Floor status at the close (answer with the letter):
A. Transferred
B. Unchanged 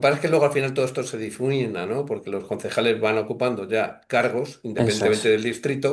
B